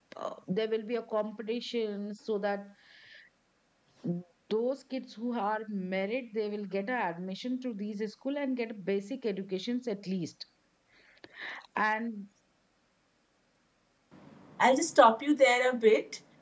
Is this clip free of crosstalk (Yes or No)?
Yes